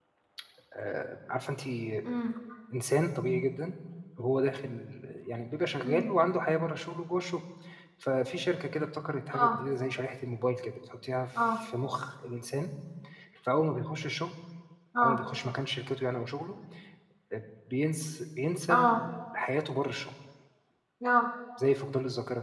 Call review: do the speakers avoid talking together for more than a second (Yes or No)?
Yes